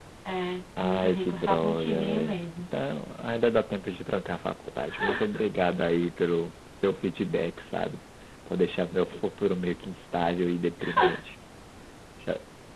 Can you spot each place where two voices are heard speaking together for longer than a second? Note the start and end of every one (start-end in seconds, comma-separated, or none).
0.8-2.4